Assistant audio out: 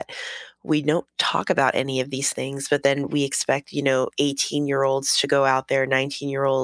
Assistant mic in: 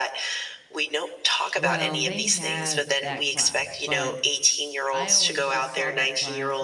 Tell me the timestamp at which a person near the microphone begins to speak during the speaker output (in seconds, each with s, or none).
1.6 s